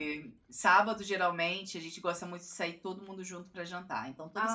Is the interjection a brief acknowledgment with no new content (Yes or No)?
No